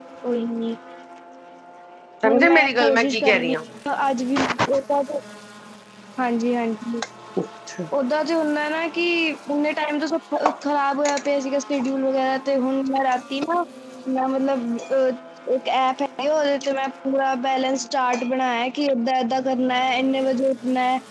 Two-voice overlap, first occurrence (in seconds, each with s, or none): 2.2 s